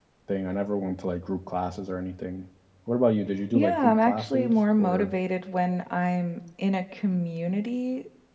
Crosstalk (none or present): present